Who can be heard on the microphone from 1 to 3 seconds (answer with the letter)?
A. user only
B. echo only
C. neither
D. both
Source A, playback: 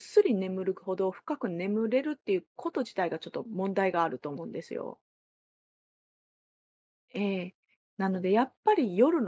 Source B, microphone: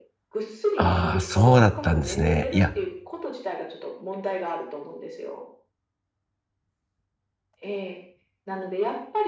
D